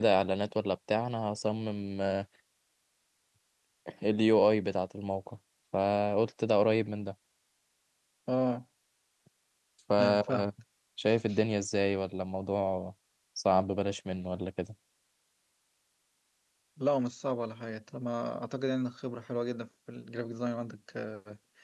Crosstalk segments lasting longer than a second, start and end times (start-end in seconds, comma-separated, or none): none